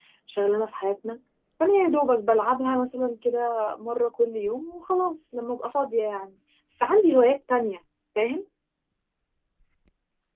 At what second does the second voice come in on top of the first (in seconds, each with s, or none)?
none